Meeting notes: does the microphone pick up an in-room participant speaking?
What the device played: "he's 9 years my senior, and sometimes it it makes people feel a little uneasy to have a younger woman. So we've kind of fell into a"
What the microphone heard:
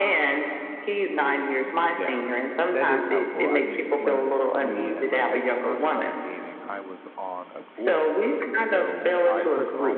Yes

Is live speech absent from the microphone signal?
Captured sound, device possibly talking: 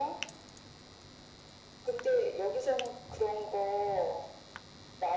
Yes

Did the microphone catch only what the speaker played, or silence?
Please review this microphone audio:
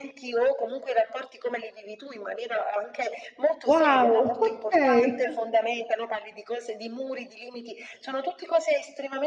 No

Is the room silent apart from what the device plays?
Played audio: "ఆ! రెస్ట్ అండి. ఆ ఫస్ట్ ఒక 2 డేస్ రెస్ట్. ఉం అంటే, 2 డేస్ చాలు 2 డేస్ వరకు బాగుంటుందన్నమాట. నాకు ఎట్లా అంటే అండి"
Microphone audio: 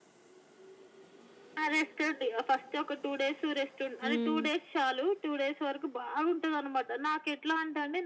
No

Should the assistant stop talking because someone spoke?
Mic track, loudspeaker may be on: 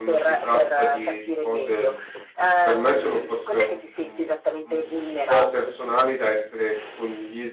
Yes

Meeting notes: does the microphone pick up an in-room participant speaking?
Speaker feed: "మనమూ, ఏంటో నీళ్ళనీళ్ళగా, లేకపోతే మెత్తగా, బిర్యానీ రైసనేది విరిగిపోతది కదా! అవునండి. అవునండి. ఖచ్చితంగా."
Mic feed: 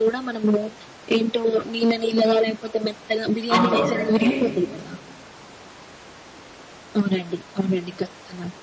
Yes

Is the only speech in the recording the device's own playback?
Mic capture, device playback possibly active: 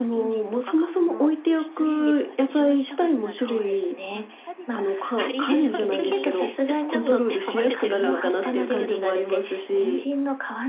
No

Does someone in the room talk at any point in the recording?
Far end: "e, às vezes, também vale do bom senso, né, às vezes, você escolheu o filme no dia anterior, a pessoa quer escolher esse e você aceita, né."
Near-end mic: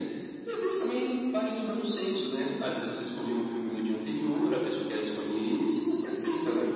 No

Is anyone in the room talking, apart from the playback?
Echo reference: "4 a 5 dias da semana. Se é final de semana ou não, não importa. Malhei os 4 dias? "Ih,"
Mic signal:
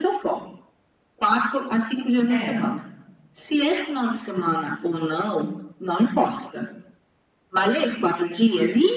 Yes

